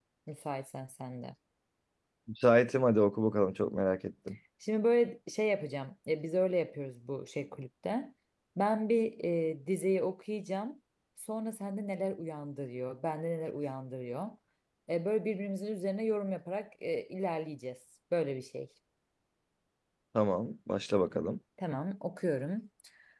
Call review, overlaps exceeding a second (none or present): none